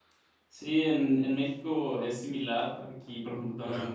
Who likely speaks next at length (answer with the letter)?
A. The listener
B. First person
B